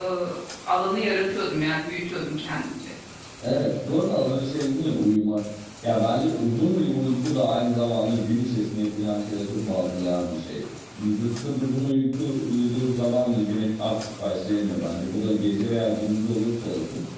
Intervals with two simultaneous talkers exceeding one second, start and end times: none

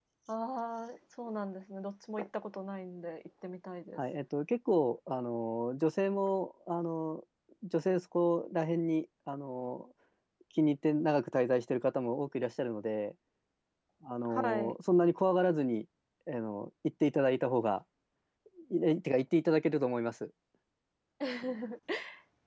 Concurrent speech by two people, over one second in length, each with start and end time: none

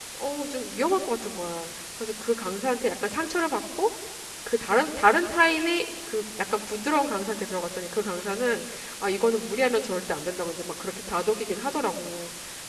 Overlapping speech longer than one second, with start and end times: none

